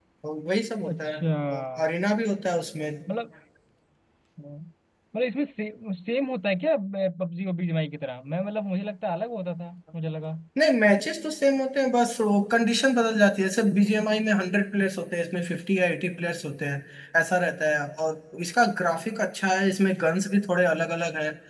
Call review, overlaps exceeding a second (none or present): none